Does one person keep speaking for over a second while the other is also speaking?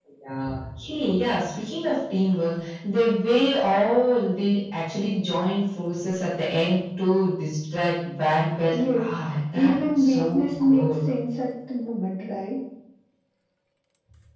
Yes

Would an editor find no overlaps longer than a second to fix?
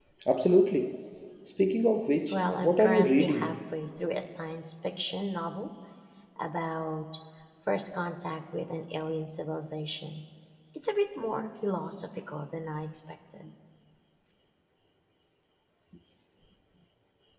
No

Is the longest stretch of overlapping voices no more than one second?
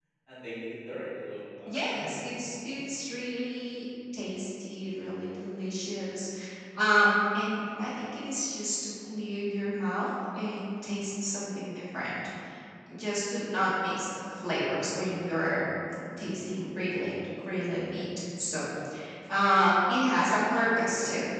Yes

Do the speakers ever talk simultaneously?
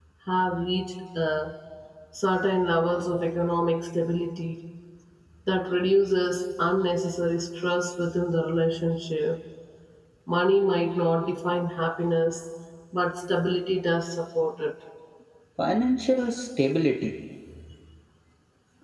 No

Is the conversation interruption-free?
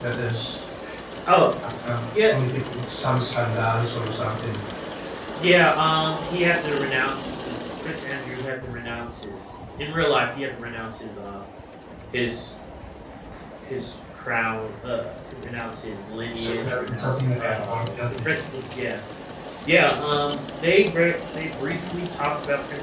No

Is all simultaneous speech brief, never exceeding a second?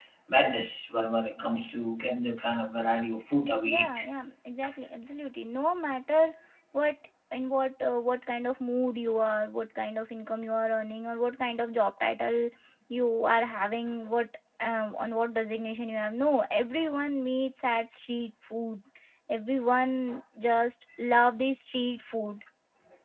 Yes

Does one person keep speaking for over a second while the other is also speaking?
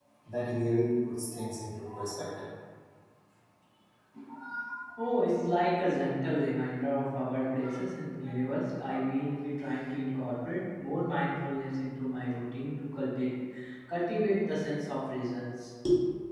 No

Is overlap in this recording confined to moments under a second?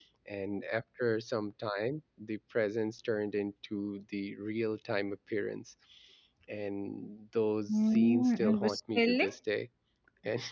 No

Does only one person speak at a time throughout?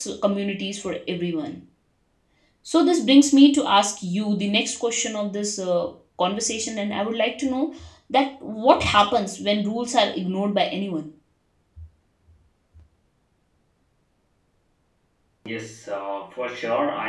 Yes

